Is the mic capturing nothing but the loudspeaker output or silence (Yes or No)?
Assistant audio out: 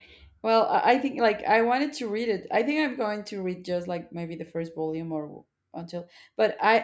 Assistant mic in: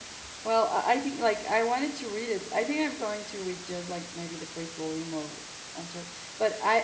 Yes